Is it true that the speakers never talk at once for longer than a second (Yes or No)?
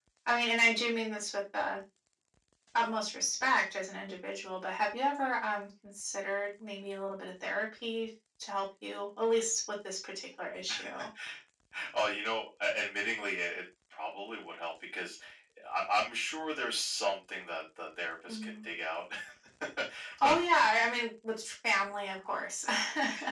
Yes